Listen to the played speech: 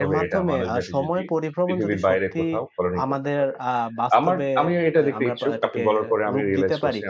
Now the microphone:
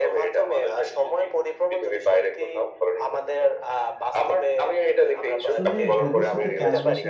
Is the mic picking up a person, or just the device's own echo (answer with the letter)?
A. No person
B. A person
B